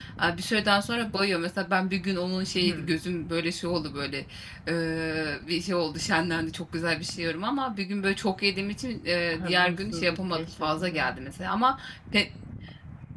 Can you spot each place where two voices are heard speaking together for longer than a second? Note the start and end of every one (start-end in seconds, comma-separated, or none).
9.3-11.2